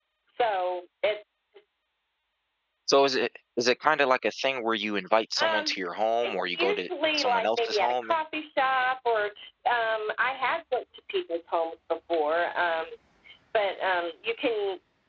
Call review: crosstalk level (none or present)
present